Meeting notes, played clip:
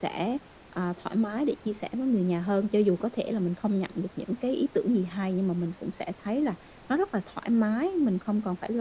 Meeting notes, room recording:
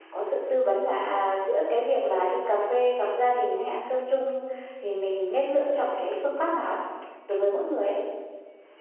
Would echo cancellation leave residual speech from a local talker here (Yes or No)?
Yes